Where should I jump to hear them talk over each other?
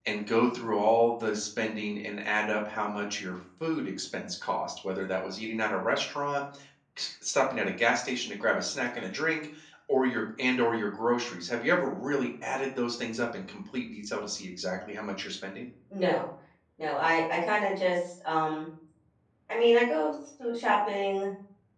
none

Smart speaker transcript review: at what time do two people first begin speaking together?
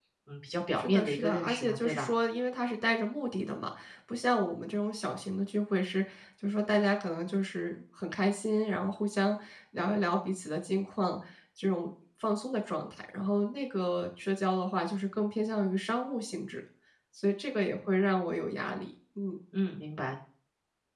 0.8 s

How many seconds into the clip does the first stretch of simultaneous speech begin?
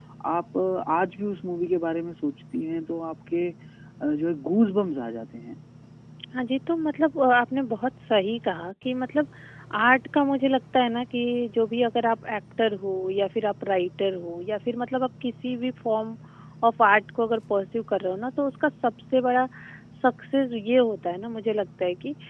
none

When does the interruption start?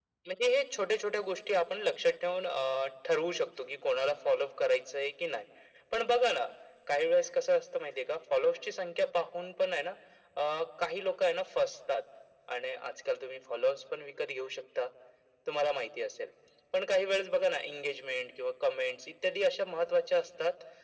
none

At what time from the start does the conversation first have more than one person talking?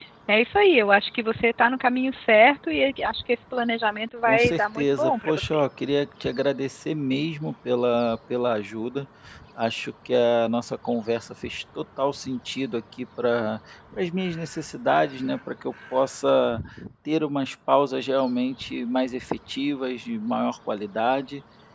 4.2 s

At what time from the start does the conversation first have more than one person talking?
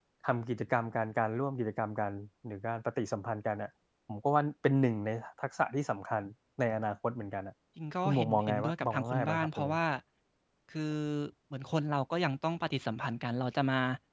8.1 s

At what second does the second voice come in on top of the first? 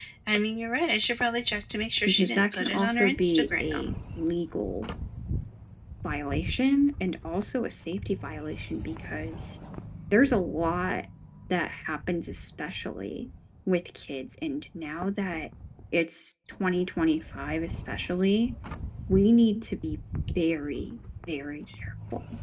2.0 s

